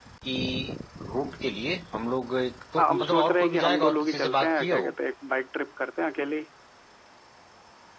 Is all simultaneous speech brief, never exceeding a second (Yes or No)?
No